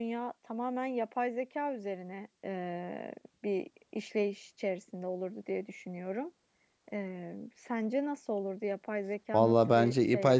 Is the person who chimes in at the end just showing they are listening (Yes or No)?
No